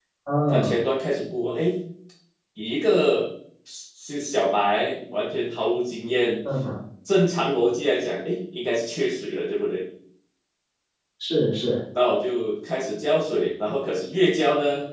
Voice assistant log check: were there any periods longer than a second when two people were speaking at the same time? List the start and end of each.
none

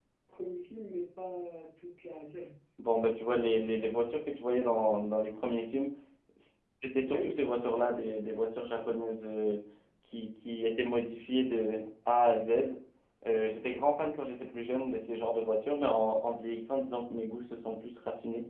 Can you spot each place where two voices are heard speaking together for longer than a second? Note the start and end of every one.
none

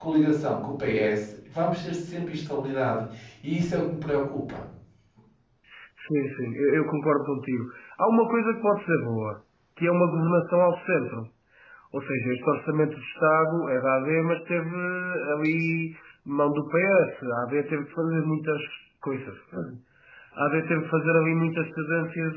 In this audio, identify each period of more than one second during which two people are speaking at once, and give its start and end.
none

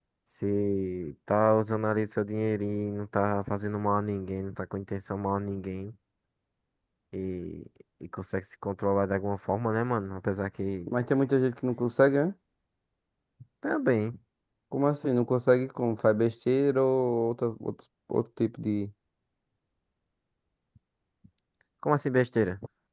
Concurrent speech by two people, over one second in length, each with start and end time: none

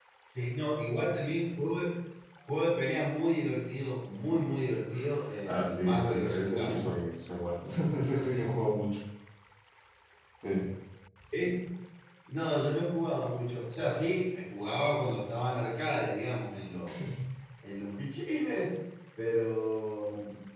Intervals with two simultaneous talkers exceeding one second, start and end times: 5.5-7.0

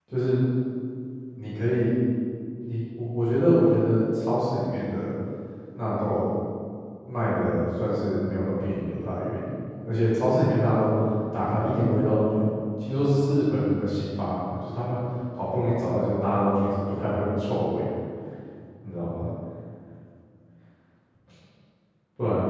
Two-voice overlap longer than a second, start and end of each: none

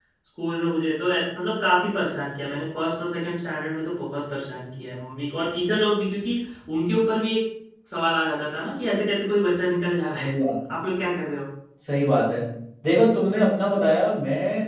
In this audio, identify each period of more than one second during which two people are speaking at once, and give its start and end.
none

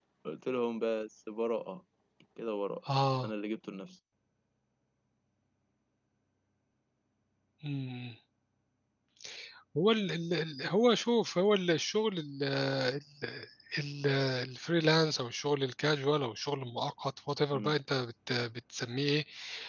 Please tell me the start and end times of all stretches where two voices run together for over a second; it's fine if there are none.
none

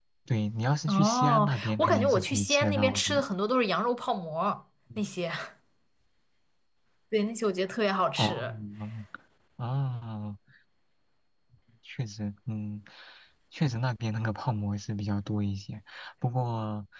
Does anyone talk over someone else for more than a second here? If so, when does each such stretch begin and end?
0.9-3.2

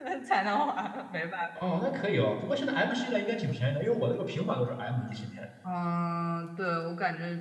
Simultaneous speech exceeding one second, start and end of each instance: none

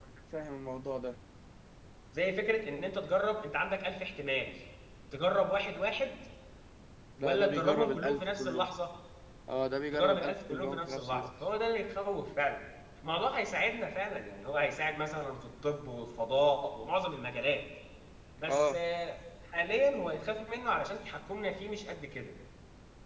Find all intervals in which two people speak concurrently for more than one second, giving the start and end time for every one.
7.2-8.7, 9.9-11.3

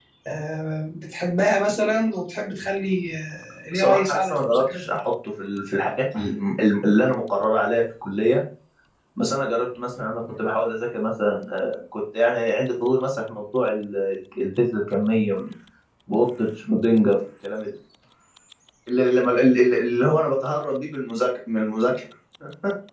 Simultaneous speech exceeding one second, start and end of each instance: 3.7-5.0

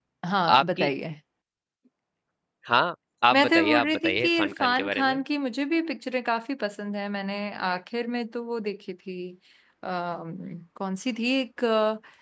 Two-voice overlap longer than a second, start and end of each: 3.3-5.2

